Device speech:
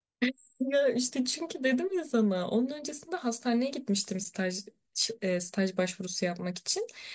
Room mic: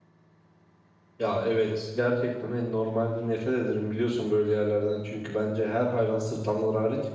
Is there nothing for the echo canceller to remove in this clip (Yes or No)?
Yes